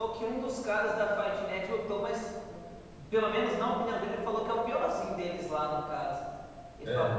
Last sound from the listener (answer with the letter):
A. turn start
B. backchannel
A